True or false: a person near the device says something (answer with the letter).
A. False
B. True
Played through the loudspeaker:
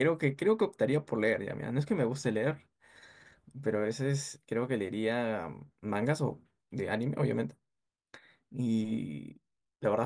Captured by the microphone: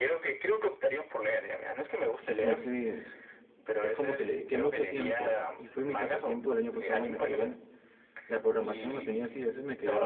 B